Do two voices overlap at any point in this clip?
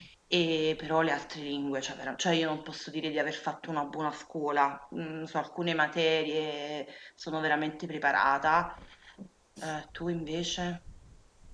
No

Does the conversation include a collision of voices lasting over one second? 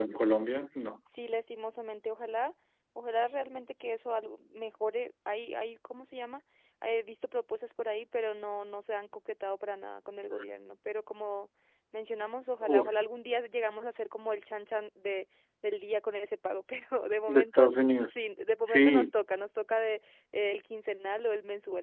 No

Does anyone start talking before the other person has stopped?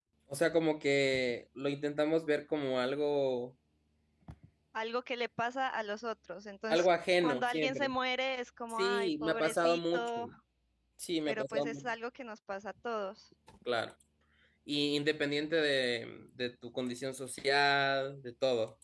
Yes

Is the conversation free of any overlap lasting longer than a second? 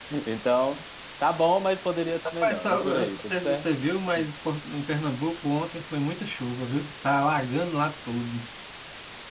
No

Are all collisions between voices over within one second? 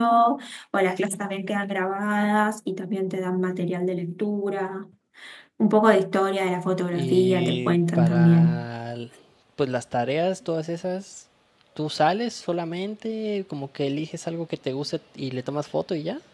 No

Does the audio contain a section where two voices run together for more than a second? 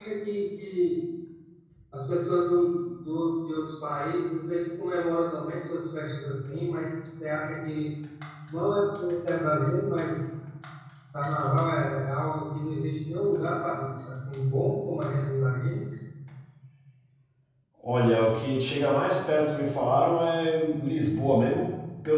No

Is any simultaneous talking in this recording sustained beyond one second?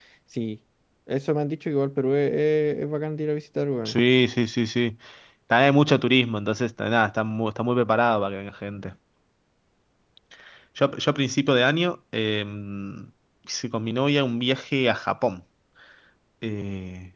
No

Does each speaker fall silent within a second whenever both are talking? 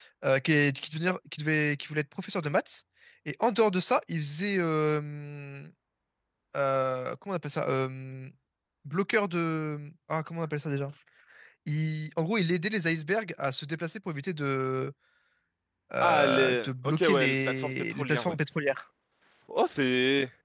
No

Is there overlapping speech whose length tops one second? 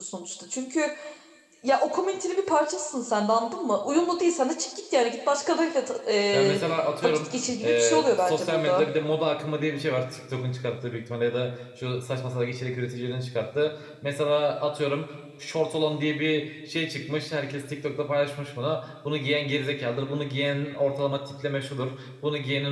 Yes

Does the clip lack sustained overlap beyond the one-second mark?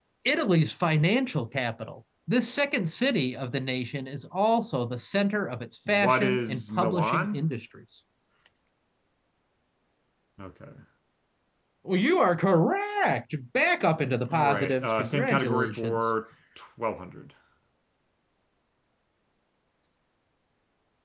No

